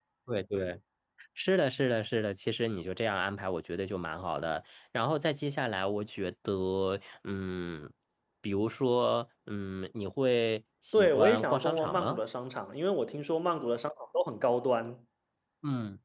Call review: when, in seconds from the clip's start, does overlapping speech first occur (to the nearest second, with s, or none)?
11 s